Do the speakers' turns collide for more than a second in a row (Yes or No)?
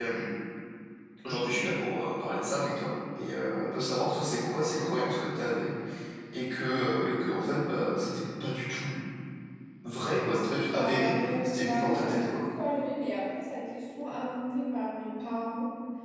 Yes